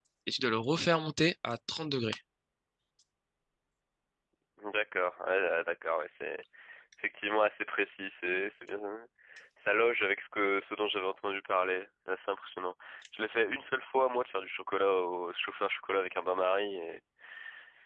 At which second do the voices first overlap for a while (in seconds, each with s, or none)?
none